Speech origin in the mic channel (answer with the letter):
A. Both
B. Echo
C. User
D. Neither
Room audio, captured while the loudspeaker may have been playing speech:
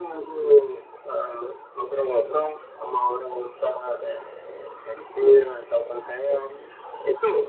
B